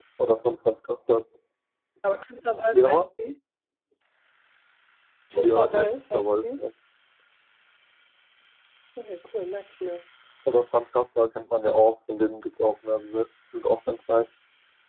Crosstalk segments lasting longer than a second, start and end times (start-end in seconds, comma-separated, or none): 5.3-6.6